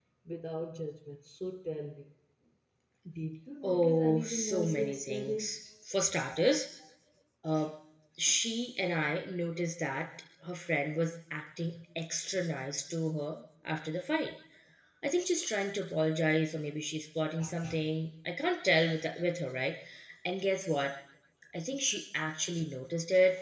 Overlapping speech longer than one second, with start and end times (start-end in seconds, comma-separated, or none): 3.6-5.5